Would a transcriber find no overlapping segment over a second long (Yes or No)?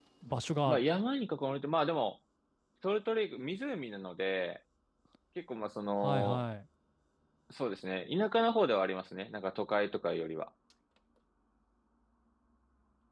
Yes